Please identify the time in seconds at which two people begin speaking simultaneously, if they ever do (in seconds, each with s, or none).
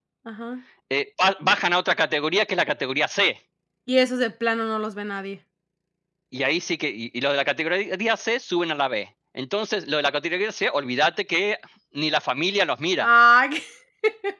none